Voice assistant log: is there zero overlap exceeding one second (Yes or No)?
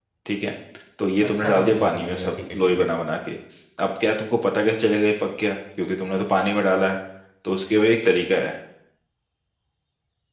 No